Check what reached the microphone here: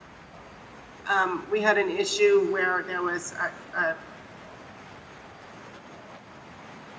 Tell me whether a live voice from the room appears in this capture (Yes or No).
Yes